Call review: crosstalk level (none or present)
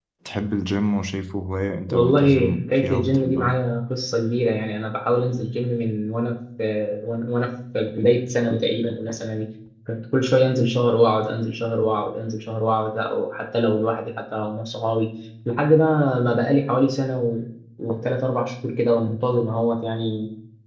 present